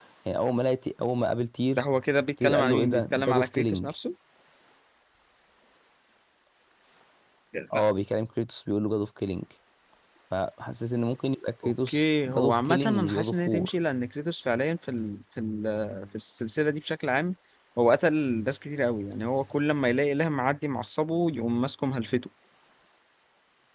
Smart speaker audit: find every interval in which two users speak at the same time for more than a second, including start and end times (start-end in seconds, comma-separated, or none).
2.4-3.9, 11.7-13.7